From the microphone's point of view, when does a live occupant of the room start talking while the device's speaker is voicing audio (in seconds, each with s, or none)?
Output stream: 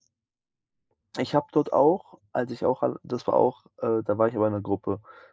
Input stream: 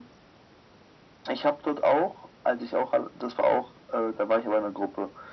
none